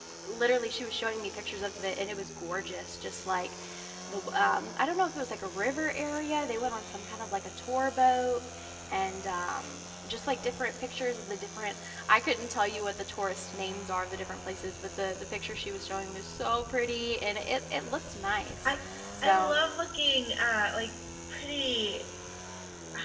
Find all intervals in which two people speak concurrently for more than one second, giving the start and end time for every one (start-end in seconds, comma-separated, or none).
none